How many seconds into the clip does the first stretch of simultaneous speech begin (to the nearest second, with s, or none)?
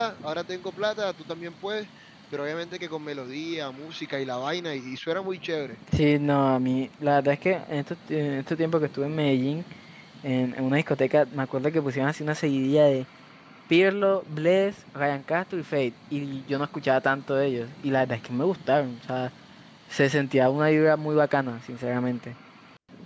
none